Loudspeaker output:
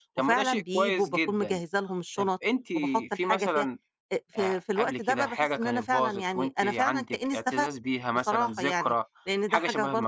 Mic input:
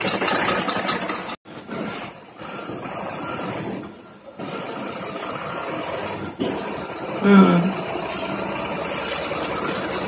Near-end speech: present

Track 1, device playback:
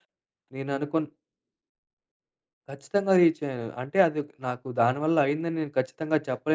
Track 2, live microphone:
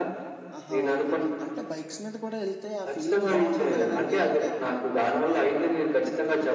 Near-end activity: present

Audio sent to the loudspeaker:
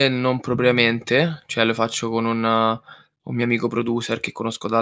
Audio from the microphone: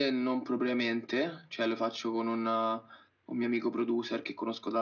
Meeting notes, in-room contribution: none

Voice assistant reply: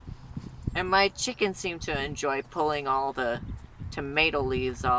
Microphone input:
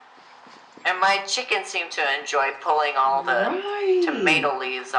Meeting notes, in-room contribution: present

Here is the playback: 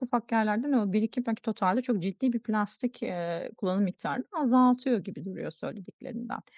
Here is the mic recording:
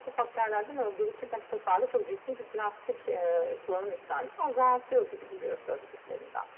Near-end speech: none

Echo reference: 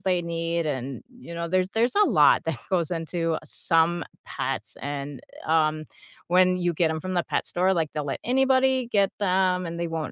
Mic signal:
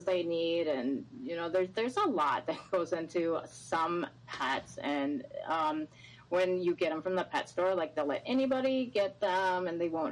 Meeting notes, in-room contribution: none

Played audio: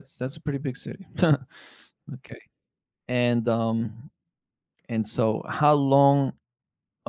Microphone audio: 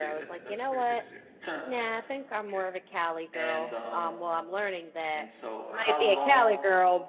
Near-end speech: present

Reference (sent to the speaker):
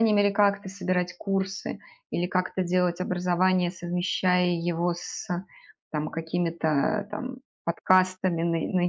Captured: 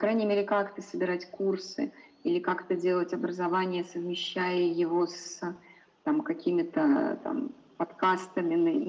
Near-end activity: none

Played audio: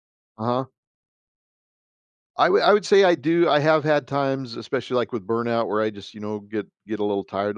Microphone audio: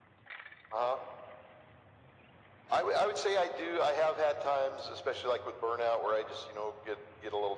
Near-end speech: none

